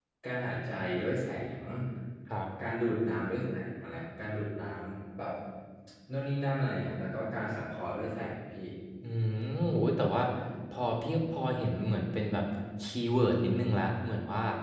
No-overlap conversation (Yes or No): Yes